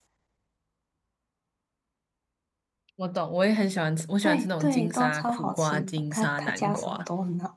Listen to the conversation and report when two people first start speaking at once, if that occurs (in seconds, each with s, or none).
4.2 s